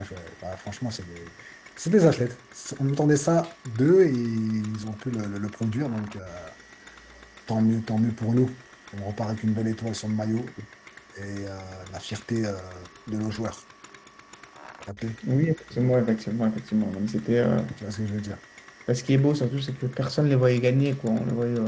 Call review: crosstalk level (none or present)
none